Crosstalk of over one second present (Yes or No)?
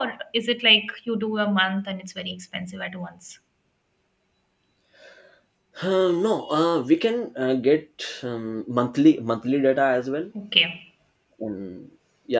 No